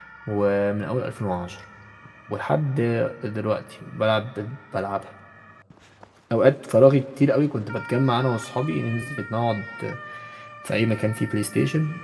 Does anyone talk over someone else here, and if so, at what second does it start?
none

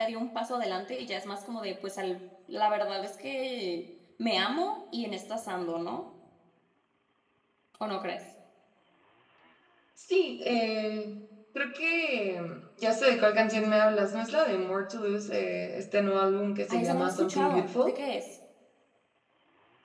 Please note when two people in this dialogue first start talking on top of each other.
17 s

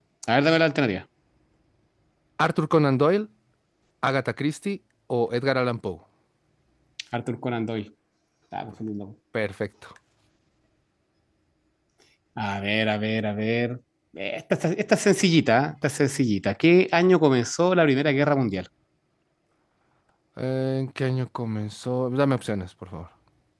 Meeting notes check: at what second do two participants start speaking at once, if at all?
none

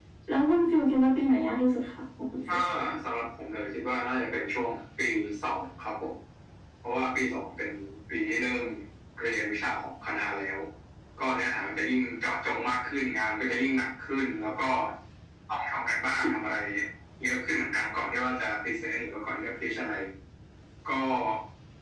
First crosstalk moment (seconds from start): none

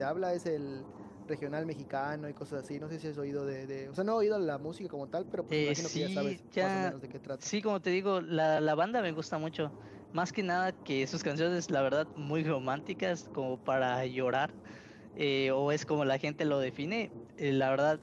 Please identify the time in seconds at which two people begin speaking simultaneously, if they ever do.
5 s

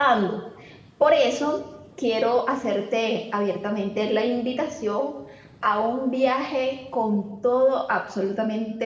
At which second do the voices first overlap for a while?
none

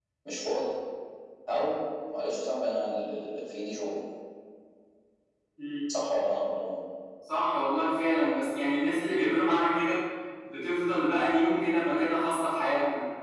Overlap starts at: none

